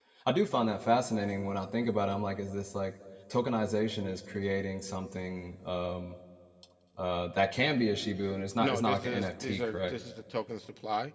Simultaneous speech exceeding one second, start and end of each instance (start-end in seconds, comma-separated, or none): 8.6-9.9